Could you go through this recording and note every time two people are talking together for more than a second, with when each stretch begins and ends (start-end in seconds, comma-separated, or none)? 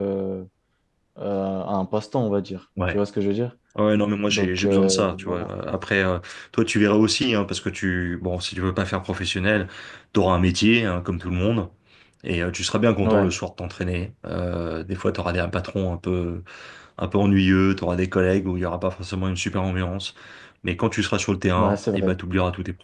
4.3-5.5